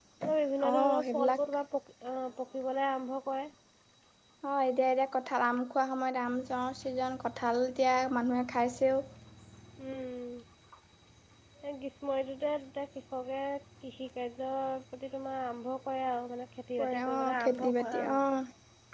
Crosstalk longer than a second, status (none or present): present